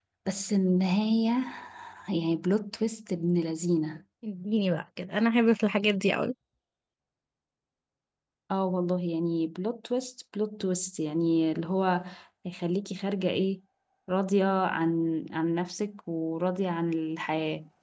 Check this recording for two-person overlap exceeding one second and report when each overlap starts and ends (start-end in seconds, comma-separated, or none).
none